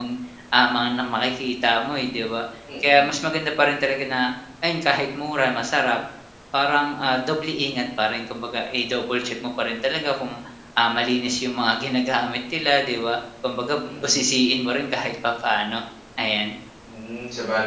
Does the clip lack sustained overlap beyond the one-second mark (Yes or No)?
Yes